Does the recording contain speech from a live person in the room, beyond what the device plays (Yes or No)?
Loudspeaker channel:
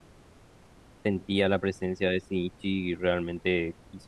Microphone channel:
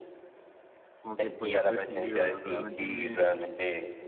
Yes